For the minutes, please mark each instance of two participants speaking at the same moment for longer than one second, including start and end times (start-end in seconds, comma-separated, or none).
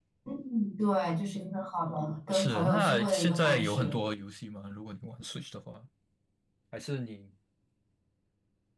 2.3-4.0